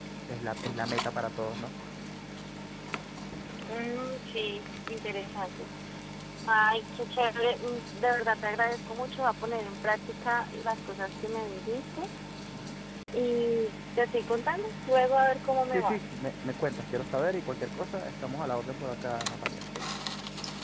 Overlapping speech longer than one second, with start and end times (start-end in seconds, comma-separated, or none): none